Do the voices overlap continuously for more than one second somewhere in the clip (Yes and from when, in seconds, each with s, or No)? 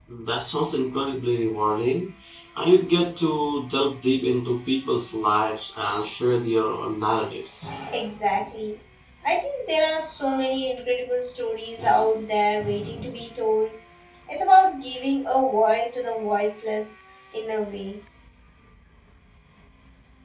No